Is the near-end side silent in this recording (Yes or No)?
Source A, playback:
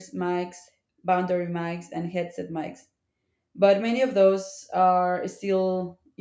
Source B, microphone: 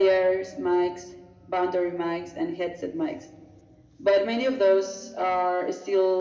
Yes